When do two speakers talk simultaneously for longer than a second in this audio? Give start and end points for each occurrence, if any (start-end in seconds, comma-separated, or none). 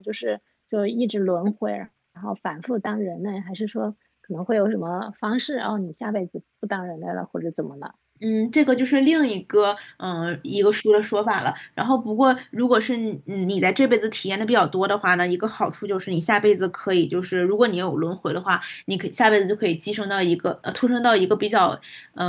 none